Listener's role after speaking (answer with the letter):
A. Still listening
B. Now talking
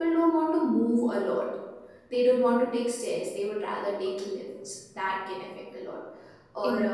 A